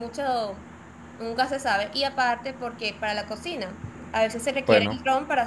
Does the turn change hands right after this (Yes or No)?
No